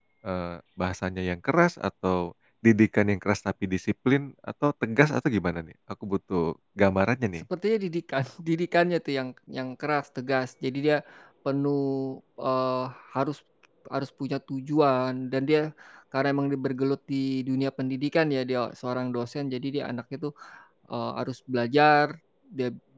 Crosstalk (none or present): none